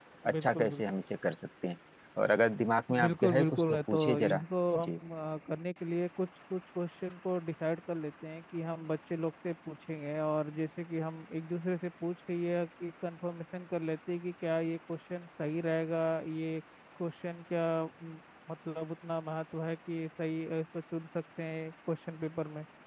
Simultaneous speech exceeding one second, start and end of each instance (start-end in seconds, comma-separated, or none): 3.0-4.4